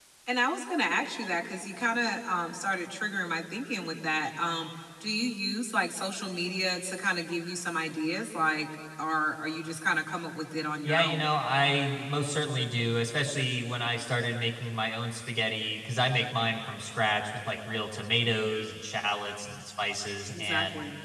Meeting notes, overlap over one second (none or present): none